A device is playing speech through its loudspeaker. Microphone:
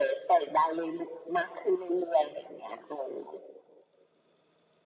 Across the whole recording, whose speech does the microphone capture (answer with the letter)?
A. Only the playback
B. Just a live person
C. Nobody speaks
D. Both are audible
A